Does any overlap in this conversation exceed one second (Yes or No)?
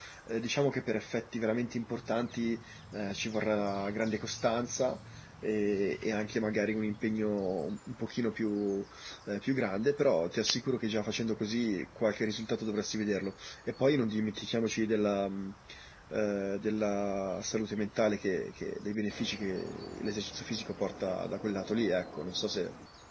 No